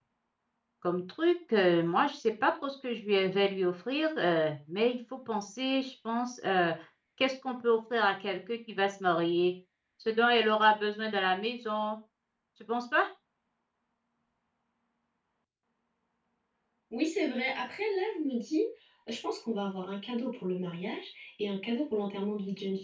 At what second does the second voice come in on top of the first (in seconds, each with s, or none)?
none